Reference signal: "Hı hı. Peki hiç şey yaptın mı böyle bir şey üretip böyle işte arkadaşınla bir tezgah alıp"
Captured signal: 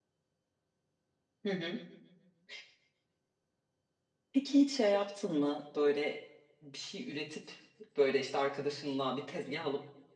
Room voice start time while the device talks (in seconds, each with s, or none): none